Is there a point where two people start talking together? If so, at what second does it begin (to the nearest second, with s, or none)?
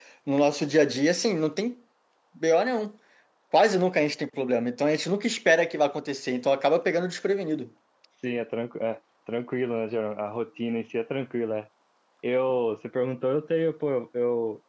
none